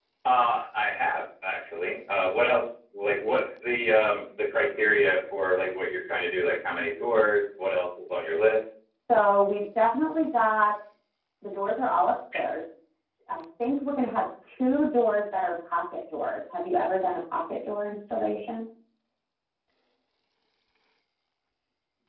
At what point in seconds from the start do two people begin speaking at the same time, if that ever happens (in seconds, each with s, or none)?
none